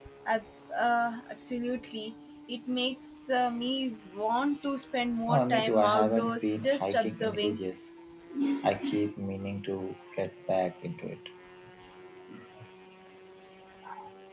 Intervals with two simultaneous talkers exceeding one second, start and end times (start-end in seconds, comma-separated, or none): 5.3-7.6